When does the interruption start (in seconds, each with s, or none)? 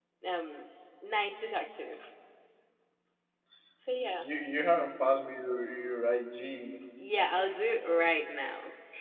none